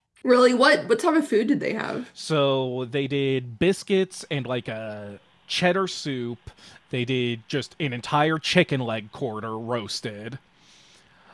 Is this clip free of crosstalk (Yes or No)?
Yes